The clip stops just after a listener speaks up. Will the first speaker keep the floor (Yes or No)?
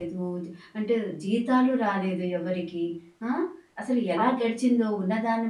Yes